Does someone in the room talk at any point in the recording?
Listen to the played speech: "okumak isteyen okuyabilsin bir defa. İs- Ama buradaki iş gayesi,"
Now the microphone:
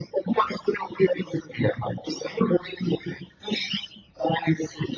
No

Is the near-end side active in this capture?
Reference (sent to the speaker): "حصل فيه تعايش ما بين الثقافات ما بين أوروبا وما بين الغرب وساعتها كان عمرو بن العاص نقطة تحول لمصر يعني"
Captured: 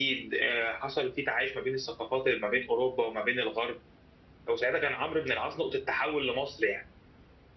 No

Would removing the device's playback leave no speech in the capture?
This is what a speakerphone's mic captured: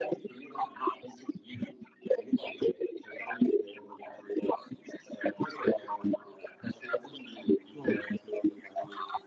No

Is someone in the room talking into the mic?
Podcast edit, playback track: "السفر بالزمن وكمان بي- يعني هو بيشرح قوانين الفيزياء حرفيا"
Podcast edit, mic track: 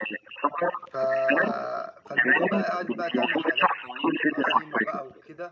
Yes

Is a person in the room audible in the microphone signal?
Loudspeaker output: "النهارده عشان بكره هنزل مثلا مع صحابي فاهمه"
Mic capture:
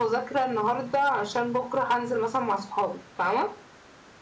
No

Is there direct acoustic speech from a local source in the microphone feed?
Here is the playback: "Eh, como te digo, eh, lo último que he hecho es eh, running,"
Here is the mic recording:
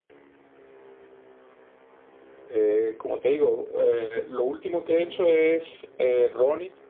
Yes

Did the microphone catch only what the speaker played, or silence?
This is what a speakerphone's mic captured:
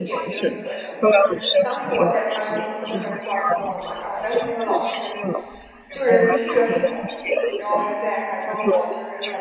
No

